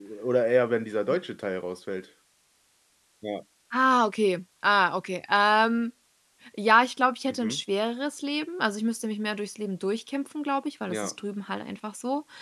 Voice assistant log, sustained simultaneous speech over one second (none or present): none